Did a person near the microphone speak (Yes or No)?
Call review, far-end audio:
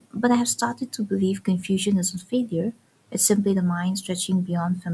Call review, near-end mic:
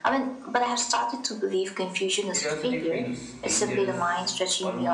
Yes